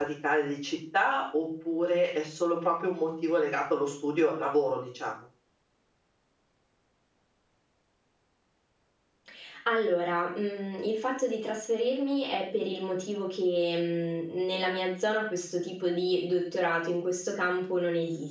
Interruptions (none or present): none